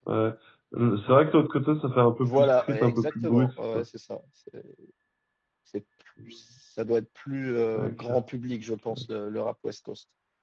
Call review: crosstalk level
present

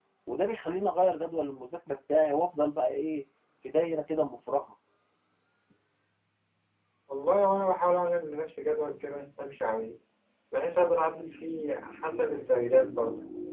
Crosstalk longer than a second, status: none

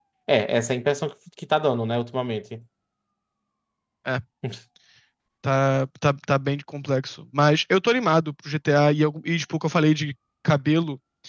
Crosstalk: none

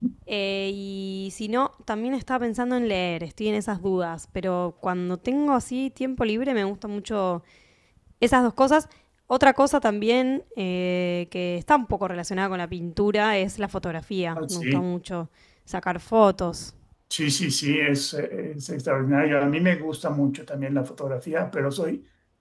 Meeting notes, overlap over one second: none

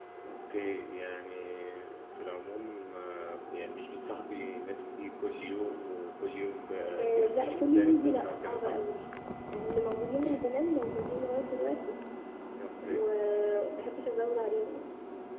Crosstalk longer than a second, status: present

